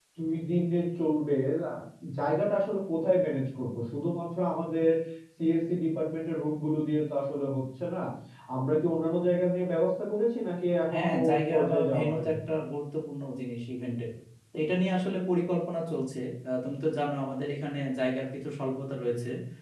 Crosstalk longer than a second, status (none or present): present